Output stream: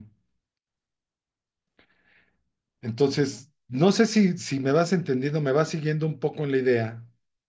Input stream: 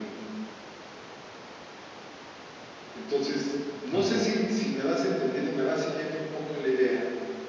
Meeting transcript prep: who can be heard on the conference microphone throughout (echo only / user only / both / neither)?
both